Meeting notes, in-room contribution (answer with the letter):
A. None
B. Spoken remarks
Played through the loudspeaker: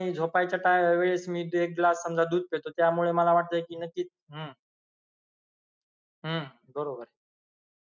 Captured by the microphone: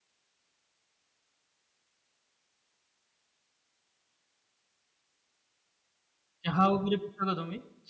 B